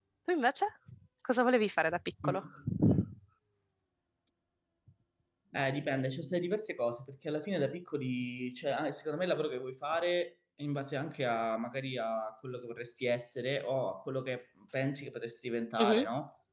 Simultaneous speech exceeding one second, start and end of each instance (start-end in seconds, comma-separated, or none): none